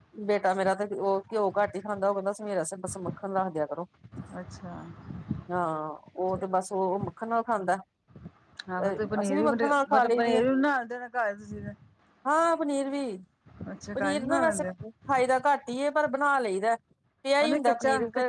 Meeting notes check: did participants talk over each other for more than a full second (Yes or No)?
Yes